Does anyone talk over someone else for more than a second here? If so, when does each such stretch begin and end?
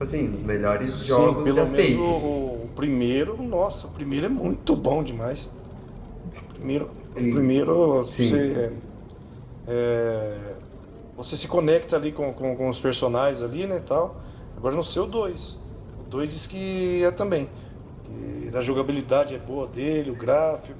0.9-2.3

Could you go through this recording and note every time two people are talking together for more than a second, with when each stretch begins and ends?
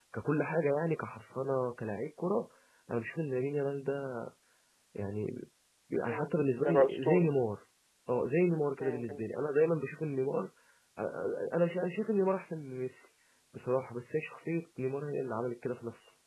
6.0-7.3

